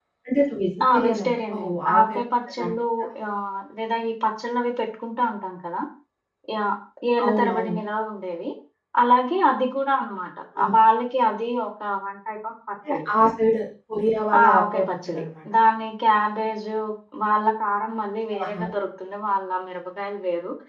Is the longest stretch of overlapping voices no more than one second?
No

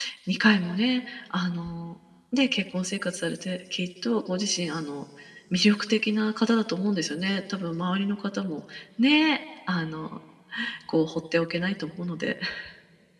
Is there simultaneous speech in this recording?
No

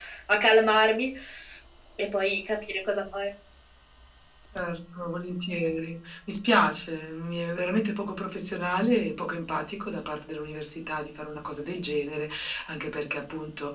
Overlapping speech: No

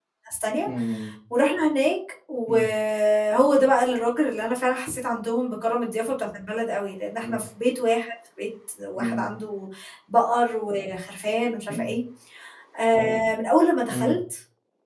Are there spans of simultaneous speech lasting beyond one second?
No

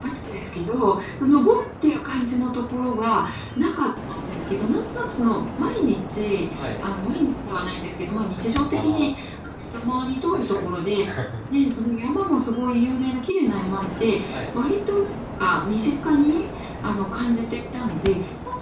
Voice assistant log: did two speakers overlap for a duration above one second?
No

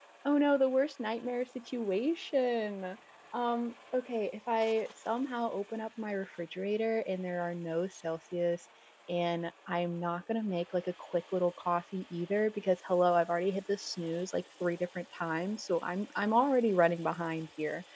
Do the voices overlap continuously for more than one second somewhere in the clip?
No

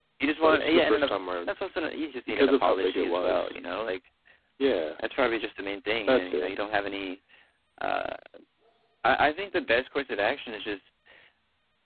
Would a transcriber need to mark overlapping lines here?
Yes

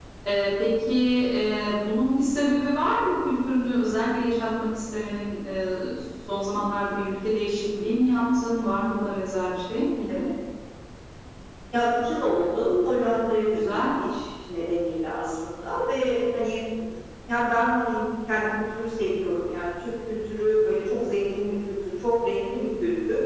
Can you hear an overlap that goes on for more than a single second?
No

